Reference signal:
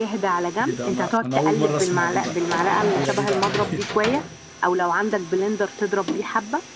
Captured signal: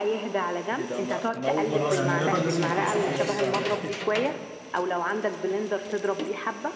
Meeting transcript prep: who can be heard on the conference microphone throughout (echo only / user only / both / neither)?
both